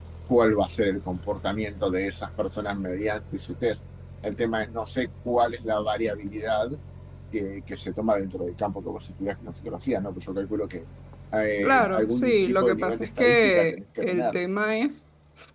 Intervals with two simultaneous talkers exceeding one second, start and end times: 11.6-14.4

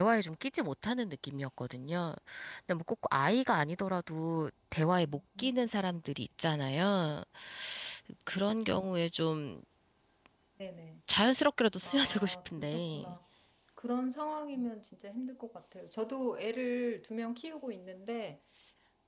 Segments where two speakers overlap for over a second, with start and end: 11.8-13.0

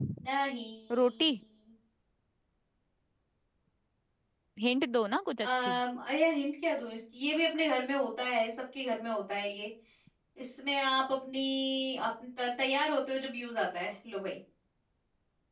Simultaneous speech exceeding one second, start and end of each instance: none

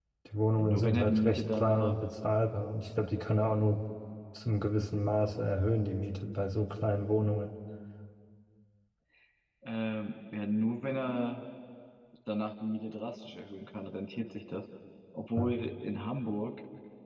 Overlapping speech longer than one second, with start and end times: 0.6-2.0

